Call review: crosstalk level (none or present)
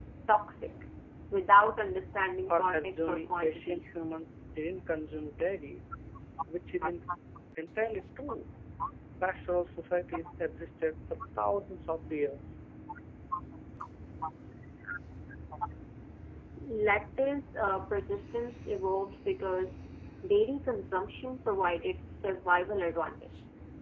present